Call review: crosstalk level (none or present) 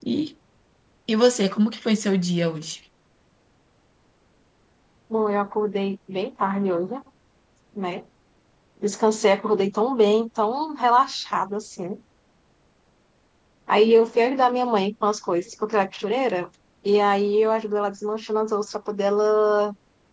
none